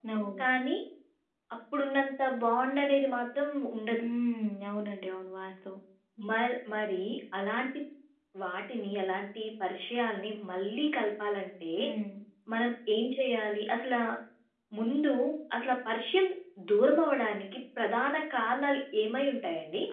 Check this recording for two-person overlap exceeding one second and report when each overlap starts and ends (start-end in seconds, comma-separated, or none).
none